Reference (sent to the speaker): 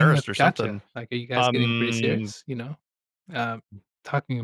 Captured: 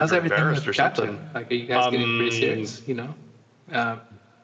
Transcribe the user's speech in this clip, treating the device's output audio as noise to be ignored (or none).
none